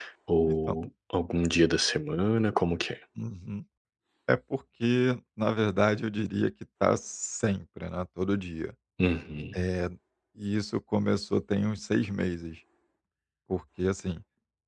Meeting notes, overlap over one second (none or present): none